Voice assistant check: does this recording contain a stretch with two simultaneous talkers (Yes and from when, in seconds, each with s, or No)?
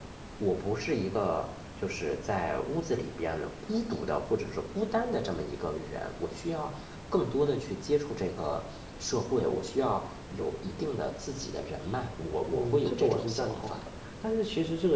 Yes, from 12.5 s